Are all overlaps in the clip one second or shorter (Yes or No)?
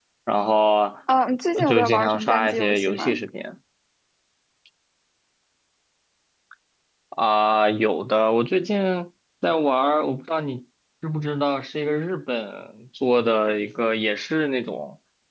No